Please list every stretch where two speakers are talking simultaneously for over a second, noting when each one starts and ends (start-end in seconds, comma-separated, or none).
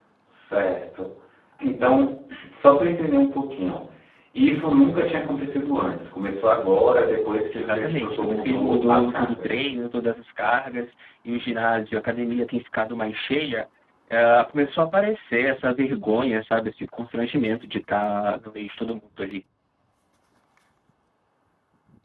7.5-9.6